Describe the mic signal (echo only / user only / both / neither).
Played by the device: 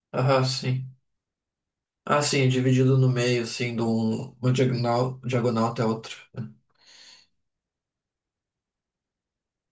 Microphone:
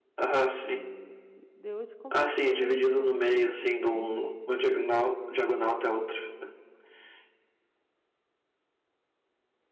both